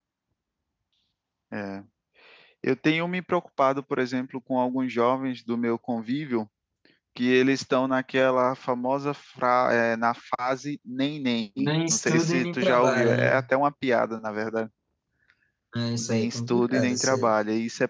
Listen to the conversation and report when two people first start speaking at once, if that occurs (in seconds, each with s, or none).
11.6 s